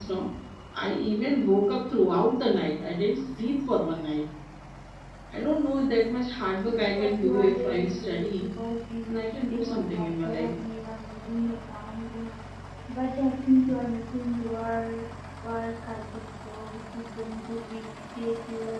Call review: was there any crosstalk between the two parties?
Yes, from 7.0 s

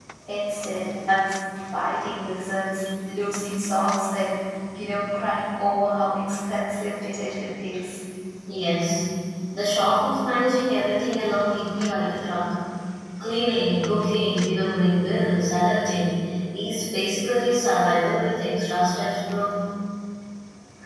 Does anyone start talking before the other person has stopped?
No

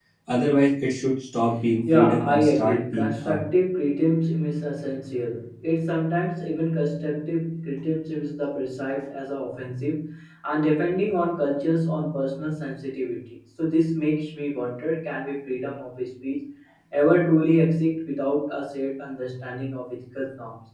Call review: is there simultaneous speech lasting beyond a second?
Yes, from 1.8 s

